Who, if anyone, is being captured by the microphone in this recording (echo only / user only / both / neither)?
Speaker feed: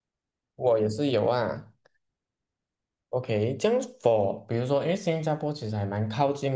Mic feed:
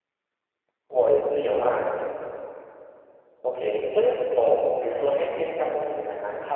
echo only